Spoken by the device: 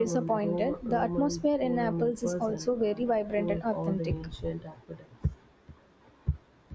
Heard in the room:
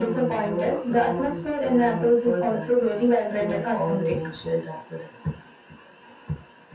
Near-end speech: none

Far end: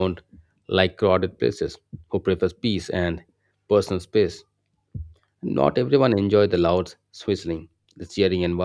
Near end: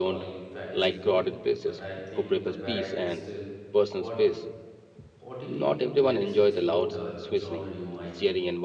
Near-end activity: present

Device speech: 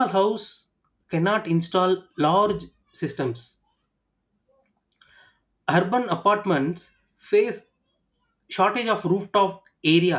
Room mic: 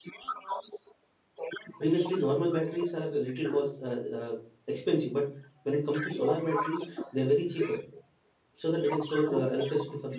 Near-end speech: present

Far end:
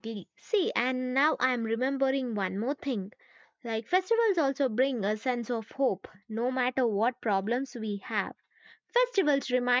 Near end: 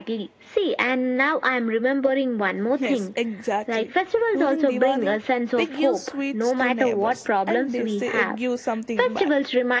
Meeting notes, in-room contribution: present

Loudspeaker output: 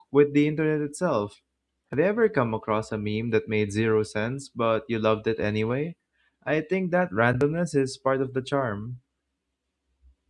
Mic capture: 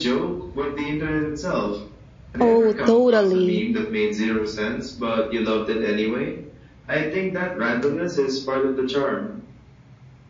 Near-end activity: present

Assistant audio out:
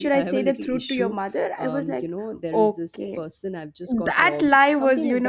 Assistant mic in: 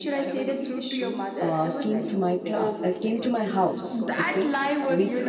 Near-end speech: present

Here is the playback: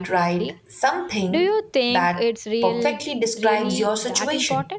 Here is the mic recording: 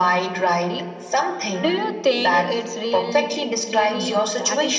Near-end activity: present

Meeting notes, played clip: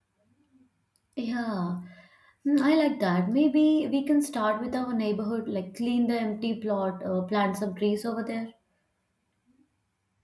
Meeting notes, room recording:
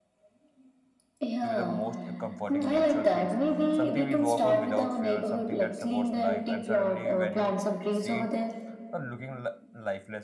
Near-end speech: present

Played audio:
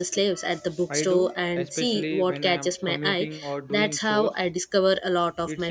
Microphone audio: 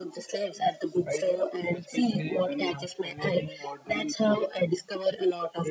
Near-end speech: none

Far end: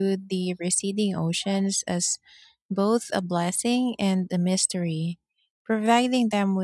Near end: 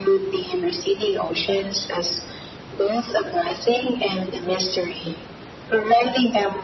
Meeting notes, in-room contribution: none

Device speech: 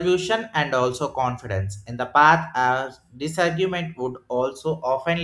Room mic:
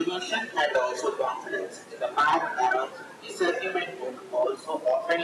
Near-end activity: none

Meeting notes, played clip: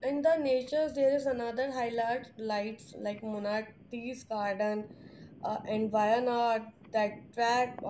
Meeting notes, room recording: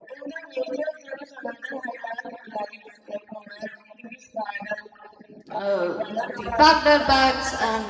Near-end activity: present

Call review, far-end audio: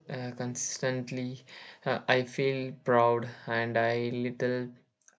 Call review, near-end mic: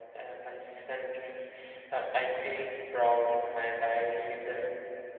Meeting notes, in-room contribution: none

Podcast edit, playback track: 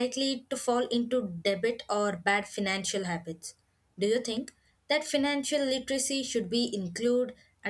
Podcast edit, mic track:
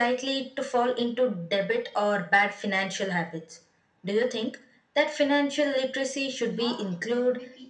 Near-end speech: present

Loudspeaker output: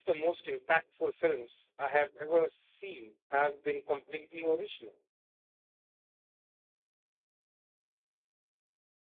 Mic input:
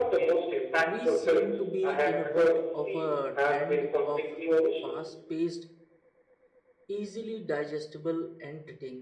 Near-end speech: present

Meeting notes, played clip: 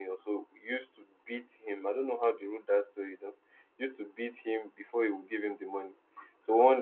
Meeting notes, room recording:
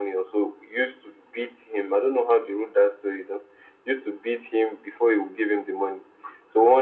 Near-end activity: none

